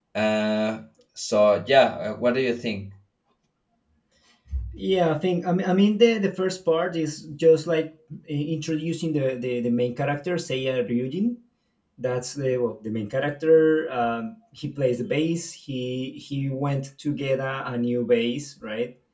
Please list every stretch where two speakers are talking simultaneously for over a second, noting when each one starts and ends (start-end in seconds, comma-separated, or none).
none